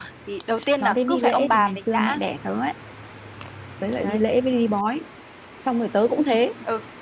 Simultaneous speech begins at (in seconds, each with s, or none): 0.8 s